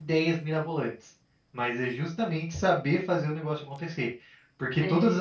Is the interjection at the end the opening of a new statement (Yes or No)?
No